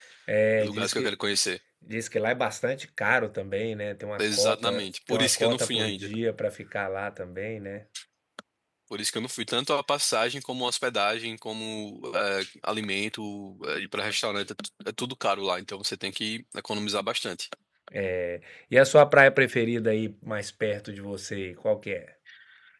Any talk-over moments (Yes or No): Yes